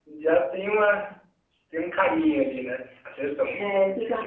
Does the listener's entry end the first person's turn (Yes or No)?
Yes